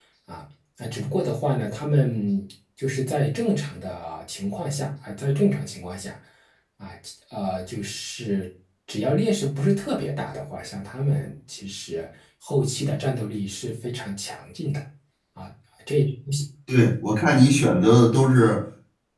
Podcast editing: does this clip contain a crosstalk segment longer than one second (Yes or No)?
No